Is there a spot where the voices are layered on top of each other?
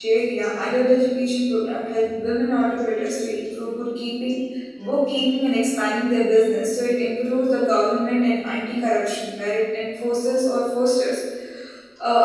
No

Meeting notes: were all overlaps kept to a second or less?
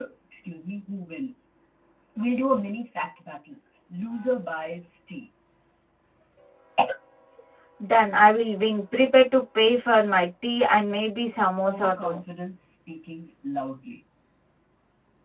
Yes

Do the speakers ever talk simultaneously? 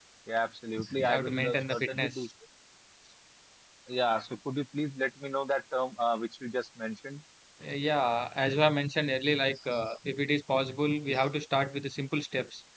Yes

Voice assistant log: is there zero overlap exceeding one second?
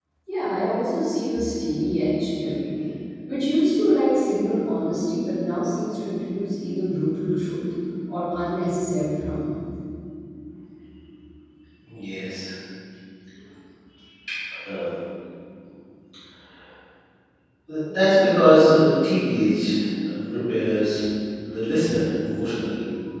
Yes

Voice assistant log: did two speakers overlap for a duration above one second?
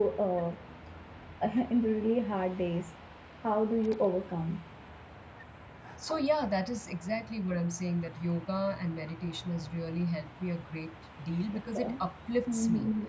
No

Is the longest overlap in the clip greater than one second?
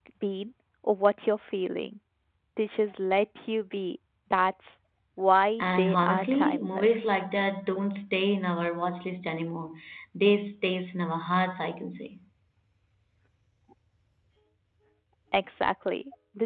Yes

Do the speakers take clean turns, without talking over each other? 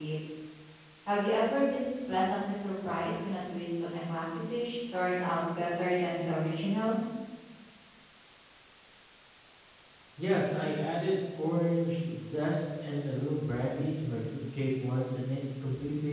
Yes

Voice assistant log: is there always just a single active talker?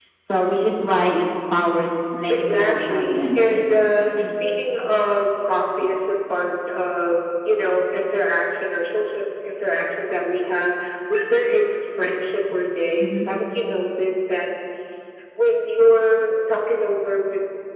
No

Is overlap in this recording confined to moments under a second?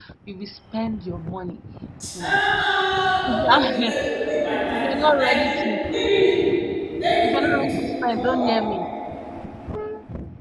No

